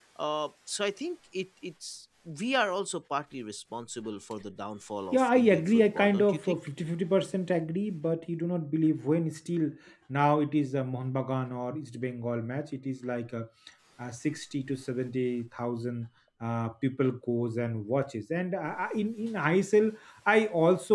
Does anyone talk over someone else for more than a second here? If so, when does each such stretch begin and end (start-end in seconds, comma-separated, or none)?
5.1-6.6